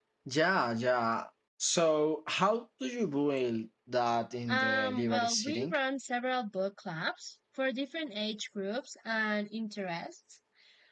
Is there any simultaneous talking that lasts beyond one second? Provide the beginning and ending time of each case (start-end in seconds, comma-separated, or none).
4.5-5.8